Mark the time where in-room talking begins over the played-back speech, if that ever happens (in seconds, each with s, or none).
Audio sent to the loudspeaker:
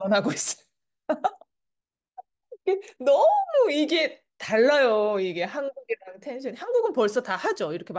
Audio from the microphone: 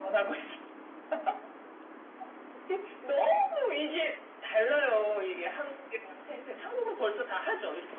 none